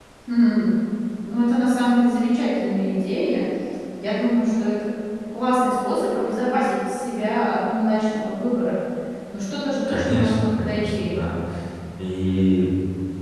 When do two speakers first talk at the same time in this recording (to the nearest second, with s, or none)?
10 s